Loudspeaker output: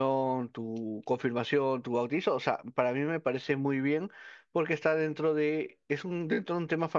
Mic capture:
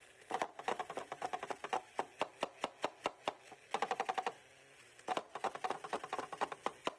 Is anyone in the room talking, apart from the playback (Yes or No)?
No